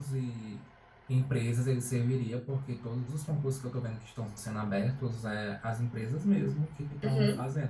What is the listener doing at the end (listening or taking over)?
listening